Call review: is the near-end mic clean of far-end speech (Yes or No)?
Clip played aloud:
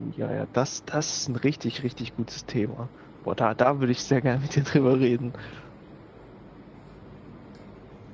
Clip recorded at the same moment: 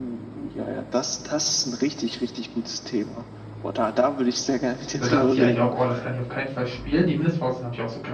No